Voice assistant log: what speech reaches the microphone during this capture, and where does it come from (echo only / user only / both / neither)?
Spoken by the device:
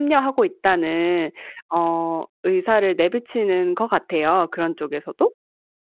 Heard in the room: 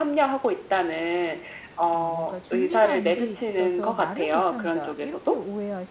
both